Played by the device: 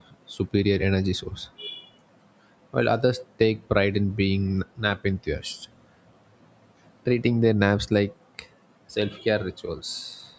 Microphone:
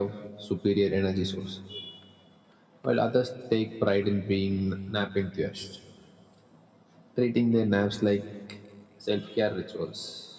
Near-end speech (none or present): none